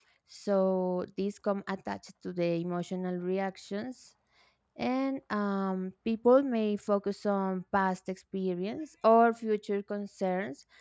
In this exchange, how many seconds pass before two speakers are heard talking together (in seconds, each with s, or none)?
none